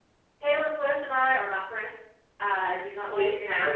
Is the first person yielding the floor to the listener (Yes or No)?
No